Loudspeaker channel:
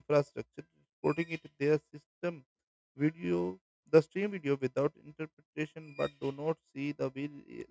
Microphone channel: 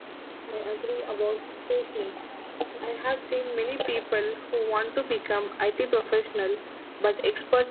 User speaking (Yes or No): Yes